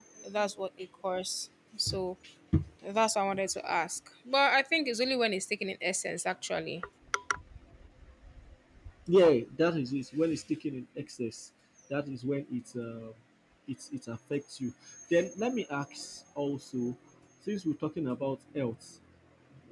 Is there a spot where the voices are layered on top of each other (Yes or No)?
No